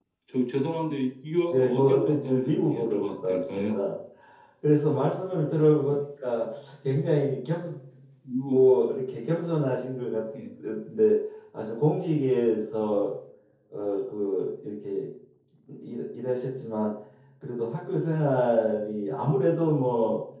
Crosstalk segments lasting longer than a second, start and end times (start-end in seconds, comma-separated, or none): 1.5-3.7